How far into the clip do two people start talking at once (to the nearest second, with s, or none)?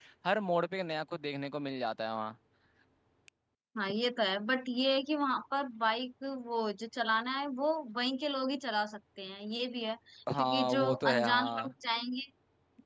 10 s